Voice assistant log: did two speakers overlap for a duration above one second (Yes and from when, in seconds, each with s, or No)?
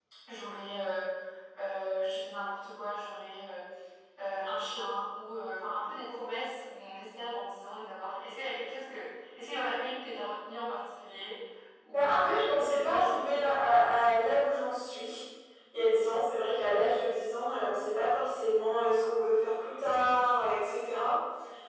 Yes, from 11.9 s